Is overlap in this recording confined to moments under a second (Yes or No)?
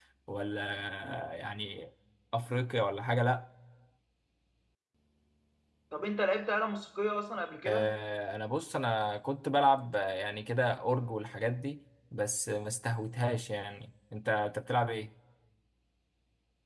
Yes